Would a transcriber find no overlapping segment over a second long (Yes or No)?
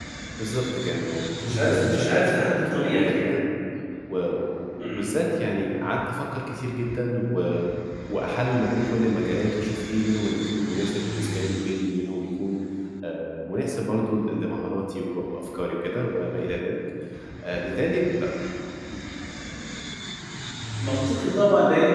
No